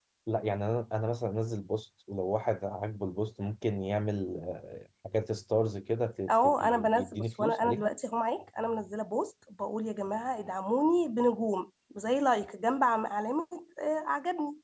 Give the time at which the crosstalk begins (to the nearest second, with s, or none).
6 s